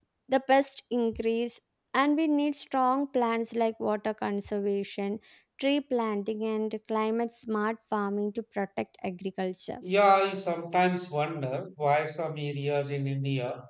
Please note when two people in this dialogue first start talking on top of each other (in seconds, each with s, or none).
none